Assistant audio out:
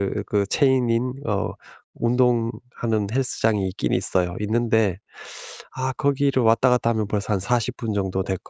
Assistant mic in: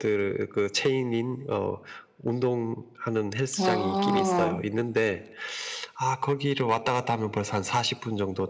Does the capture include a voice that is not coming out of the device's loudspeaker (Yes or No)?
Yes